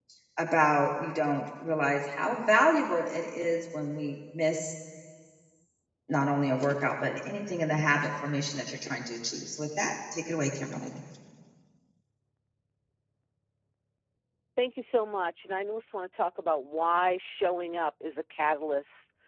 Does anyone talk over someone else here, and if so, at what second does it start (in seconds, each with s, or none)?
none